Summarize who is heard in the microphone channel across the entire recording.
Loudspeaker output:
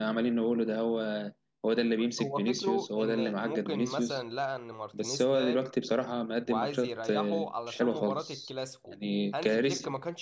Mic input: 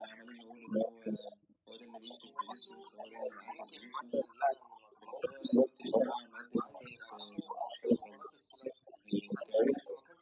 echo only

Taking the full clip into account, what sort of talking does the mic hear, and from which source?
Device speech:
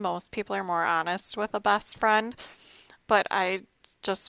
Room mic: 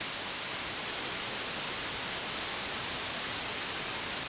neither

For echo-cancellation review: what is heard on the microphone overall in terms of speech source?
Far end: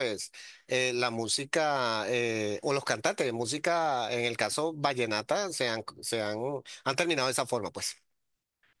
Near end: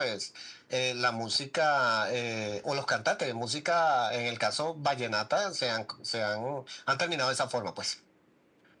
echo only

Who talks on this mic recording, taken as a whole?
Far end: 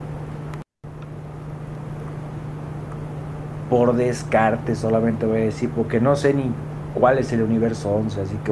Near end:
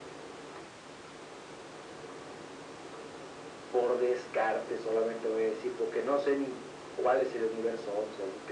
echo only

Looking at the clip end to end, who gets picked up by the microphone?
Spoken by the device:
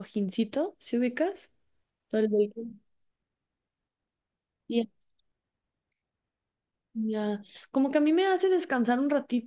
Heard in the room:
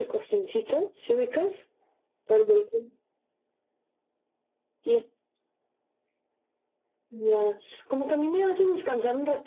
echo only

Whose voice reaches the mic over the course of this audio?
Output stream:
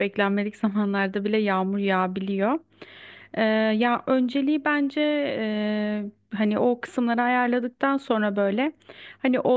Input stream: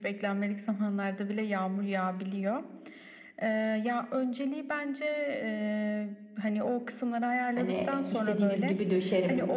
both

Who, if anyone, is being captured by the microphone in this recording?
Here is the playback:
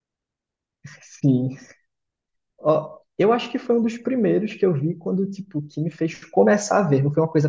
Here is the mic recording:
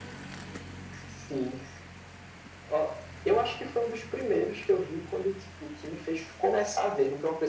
echo only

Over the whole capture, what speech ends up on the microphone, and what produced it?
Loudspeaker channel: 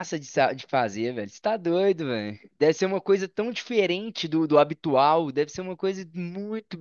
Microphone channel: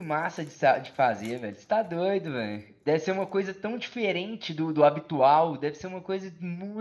echo only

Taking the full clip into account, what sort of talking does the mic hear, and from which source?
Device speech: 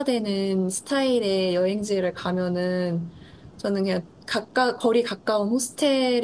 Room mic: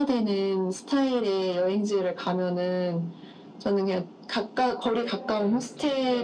both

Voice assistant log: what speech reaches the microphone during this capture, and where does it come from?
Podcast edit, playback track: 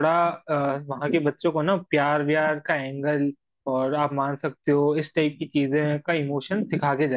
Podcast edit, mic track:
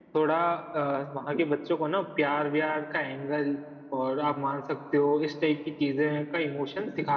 echo only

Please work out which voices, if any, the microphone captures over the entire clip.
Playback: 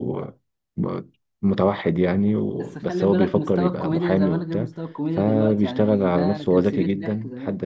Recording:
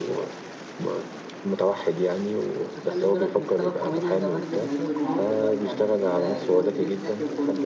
both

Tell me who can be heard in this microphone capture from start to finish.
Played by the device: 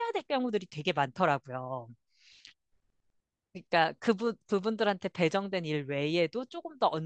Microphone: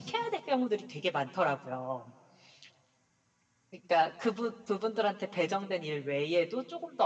echo only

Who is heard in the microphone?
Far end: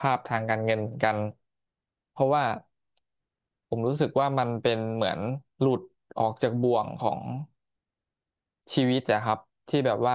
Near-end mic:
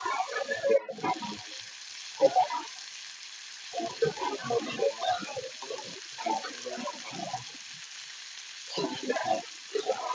echo only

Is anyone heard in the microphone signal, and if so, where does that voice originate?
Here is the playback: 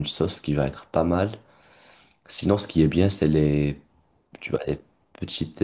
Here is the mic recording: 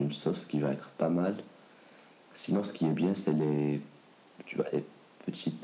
echo only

